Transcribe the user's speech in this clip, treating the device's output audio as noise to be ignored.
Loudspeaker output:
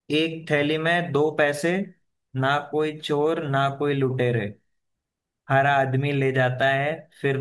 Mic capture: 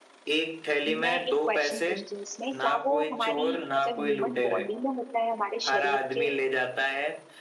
मैं एक क्वेश्चन पूछती हूँ इसमें क्या वो हमारी मतलब ह्यूमन बॉडी में होता है हमारे शरीर के

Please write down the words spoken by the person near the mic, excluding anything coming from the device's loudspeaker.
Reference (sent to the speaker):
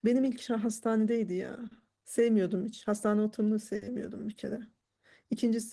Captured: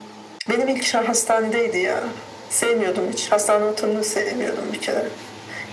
none

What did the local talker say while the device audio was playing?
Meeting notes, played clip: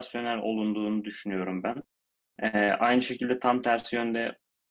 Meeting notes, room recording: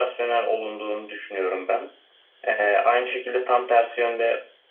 none

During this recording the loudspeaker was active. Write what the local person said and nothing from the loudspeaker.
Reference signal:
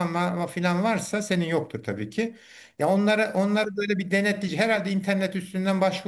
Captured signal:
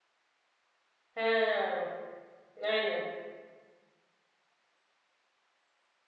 Ha, aynen.

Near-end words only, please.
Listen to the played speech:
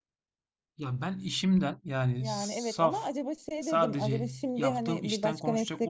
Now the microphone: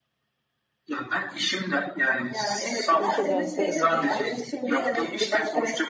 başa dönseydin eğer?

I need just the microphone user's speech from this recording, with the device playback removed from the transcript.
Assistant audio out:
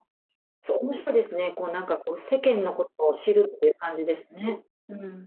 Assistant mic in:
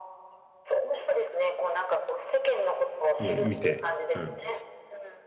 うん、見て。うん。

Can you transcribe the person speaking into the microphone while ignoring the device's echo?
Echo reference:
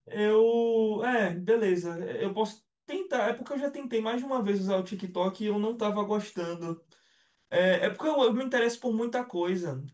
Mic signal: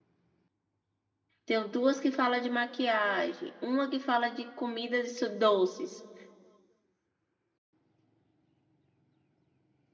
Tenho duas que falam de maquiagem, uma que fala de comidas e su- doces.

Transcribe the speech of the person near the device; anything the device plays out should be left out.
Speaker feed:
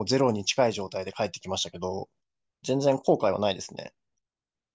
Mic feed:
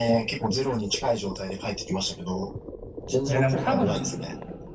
いや、でも多分、

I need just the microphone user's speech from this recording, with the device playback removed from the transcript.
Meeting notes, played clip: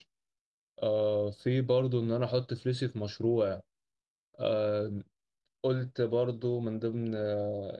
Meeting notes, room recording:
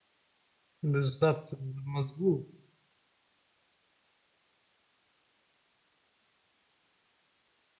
بالظبط مظبوط

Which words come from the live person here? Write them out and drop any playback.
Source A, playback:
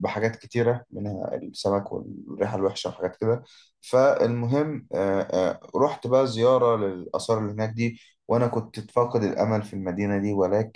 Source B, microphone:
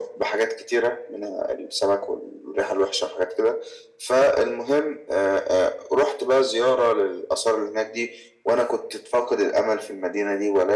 none

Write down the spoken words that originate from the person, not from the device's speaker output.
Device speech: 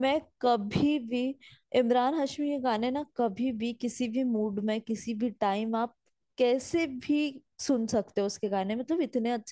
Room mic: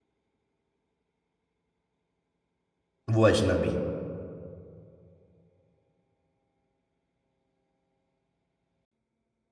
वो अजनबी

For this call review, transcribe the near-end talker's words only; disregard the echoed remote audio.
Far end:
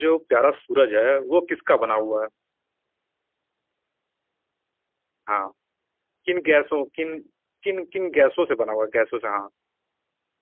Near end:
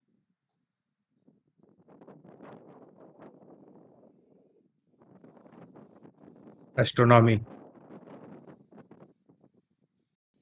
एस्ट्रोनॉमी

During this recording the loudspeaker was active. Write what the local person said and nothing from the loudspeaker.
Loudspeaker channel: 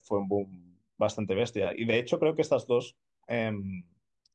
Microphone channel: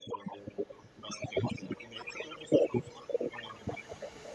none

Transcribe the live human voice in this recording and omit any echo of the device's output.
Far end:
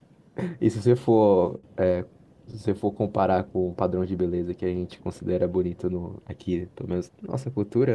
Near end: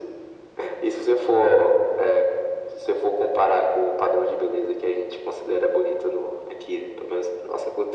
none

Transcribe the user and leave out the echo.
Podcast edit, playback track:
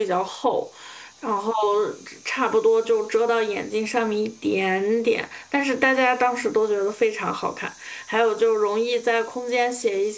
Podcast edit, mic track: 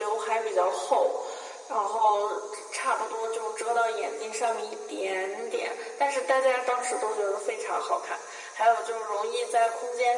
none

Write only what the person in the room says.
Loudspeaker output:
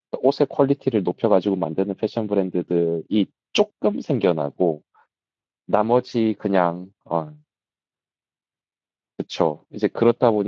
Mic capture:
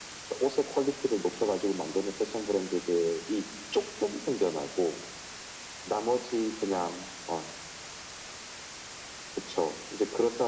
none

